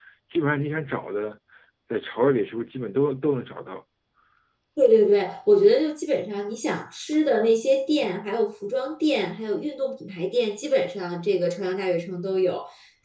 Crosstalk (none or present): none